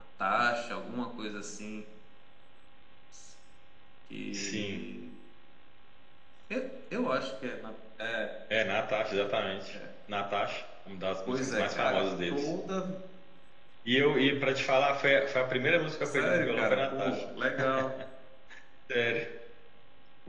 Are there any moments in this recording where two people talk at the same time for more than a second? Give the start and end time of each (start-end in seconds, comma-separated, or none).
11.3-12.5, 16.1-17.3